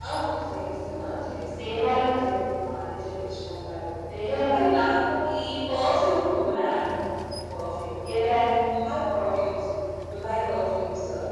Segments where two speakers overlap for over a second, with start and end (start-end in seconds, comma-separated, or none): none